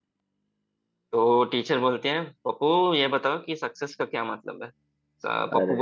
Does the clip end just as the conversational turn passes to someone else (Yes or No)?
No